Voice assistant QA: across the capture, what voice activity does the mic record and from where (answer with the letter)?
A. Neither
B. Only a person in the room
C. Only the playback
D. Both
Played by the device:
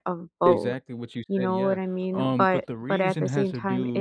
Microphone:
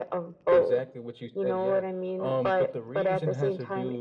C